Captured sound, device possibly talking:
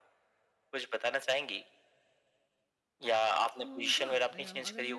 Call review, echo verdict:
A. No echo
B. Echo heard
B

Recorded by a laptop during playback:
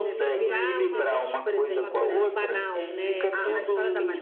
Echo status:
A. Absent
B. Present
B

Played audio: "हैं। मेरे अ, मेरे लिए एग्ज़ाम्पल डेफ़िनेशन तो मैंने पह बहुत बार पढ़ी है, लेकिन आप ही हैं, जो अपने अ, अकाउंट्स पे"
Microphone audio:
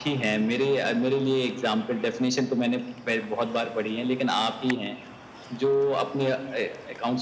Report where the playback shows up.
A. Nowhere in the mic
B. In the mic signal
B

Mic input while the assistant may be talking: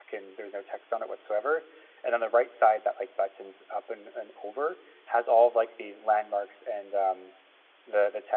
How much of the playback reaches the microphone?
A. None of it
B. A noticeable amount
A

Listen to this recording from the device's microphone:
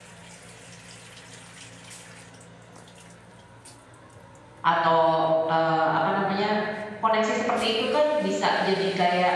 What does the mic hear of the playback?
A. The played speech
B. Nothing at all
B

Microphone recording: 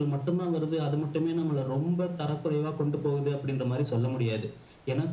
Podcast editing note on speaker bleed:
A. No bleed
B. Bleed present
B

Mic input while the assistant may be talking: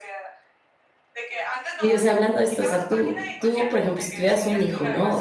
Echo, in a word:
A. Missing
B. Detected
B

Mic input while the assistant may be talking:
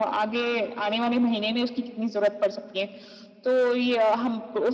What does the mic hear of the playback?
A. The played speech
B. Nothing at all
A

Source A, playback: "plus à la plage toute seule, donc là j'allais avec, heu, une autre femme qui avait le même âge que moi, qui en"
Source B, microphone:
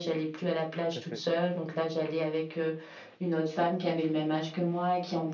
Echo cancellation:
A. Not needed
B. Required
B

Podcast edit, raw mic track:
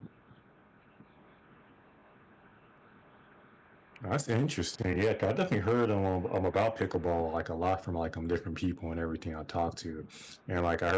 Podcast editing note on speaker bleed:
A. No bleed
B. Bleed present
A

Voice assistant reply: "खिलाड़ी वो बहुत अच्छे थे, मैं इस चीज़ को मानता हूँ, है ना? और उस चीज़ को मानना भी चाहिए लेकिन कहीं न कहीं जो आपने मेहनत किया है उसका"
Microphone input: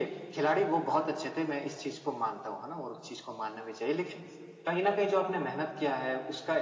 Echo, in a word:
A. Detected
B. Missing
A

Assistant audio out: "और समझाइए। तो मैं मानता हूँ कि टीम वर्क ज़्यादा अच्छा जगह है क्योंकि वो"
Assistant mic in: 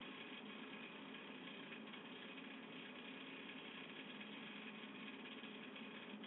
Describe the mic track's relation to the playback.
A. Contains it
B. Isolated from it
B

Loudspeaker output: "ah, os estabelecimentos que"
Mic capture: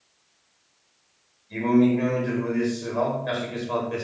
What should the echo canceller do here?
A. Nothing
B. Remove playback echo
A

